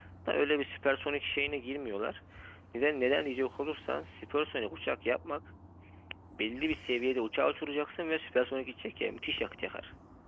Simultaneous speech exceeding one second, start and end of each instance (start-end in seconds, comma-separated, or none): none